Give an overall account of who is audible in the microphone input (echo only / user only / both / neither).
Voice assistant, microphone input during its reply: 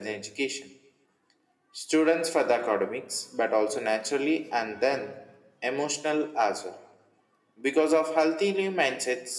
echo only